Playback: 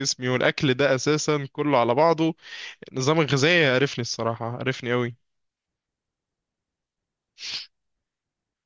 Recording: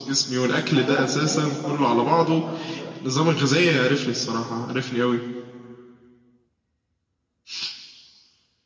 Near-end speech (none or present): present